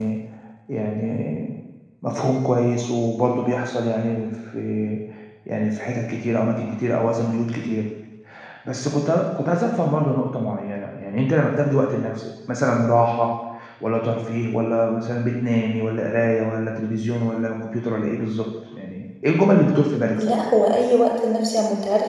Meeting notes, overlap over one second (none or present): none